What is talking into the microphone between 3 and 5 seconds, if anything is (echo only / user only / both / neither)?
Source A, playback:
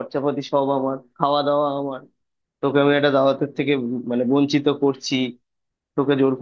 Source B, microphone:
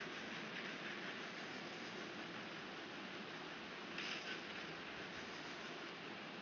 neither